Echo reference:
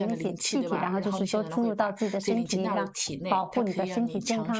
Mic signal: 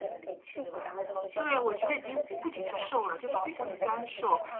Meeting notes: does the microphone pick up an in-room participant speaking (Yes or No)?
Yes